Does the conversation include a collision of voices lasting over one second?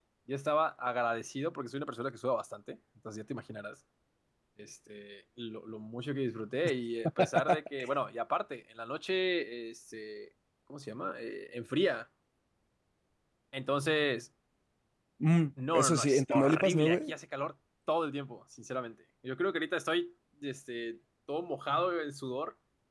Yes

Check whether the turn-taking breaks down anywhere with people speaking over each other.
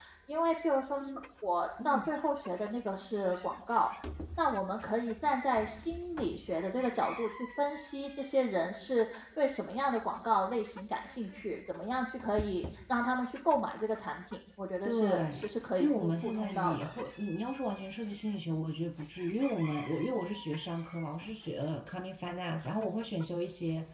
Yes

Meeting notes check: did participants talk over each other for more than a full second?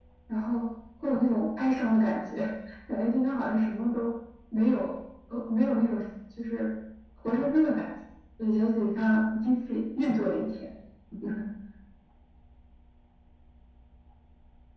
No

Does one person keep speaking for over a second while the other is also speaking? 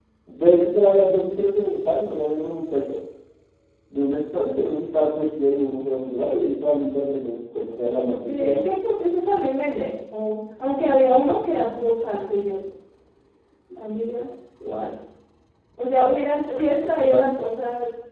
No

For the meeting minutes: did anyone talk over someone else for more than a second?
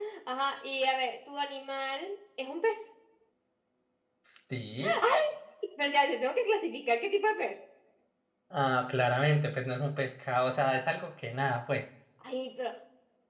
No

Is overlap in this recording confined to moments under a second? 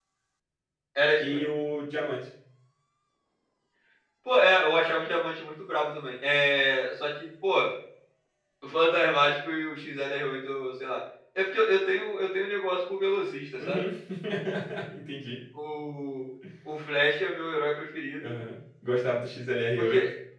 Yes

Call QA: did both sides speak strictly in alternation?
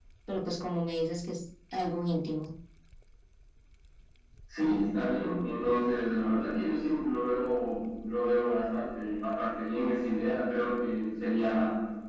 Yes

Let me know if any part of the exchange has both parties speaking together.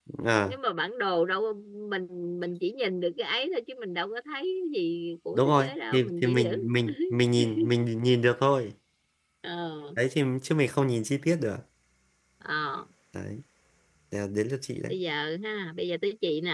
Yes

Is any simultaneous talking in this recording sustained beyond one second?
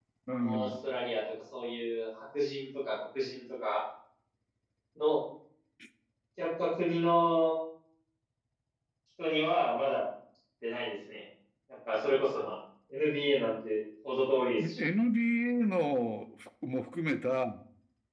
No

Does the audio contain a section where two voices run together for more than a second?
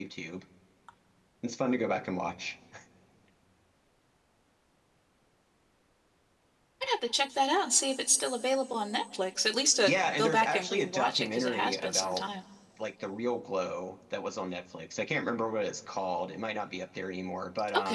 Yes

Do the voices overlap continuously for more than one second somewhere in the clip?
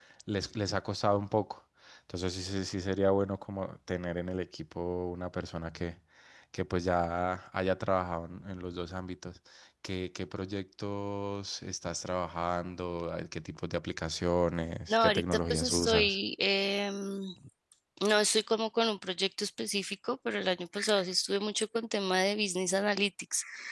Yes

